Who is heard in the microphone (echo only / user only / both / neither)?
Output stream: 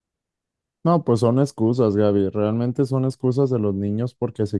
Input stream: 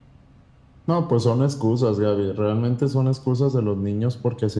echo only